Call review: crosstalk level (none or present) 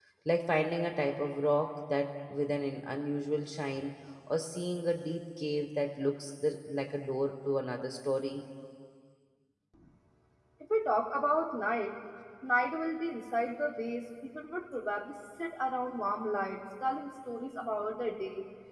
none